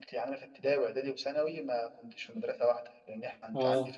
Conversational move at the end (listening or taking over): listening